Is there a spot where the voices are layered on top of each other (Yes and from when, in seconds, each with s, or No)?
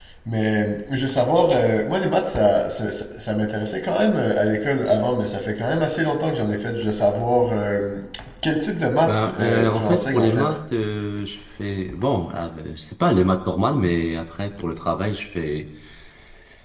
Yes, from 9.1 s